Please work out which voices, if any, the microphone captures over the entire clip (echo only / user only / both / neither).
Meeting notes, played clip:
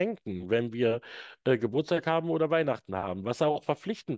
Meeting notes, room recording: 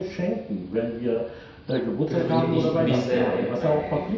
both